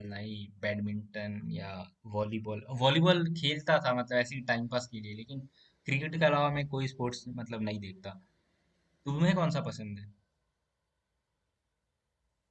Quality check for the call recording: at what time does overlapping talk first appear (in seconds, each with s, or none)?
none